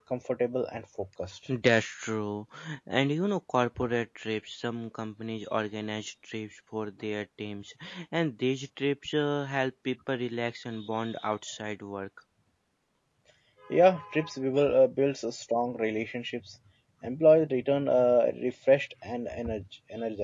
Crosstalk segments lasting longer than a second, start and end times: none

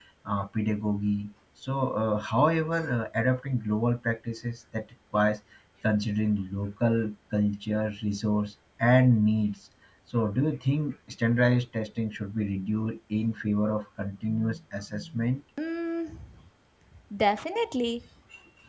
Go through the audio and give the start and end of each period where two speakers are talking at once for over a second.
none

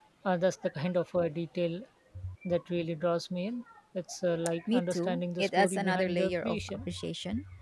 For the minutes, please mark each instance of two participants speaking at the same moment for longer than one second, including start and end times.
4.7-6.8

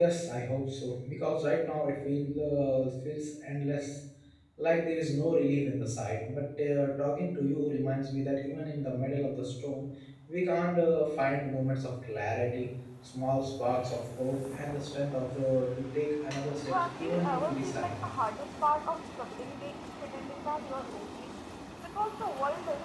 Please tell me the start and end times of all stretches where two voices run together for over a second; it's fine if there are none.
16.7-18.1

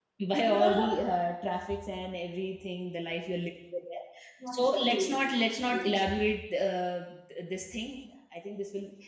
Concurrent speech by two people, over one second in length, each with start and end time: 4.5-5.9

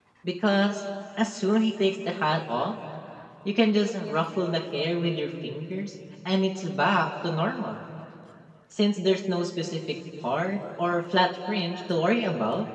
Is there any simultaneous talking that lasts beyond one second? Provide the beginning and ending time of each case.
none

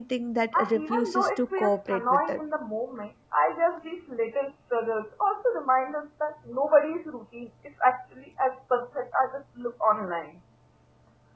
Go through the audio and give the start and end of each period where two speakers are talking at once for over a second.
0.5-2.4

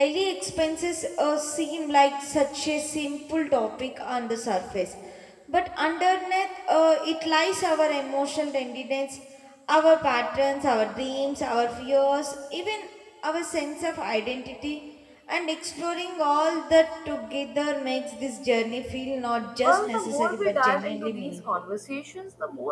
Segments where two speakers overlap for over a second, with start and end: 19.6-21.4

